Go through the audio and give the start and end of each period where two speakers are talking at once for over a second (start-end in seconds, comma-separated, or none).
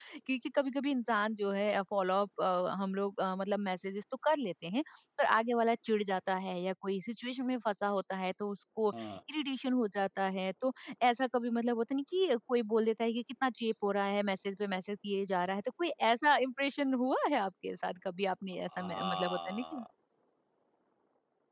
18.6-19.8